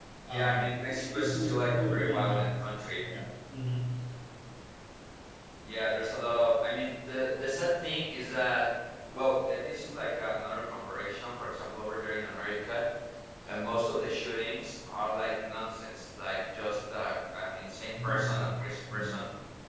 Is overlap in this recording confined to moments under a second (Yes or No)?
No